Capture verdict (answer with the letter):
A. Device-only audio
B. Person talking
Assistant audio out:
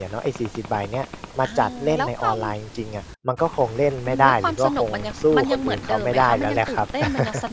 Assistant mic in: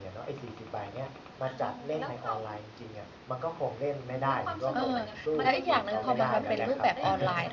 B